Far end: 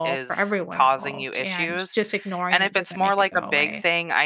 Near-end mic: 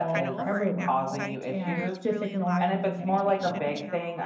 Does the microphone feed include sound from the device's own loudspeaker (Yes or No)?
Yes